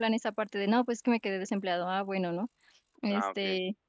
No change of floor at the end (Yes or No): No